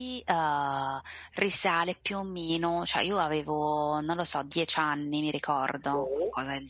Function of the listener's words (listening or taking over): listening